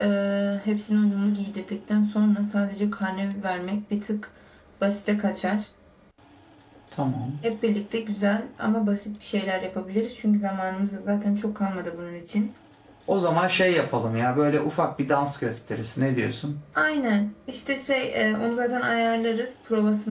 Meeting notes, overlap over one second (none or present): none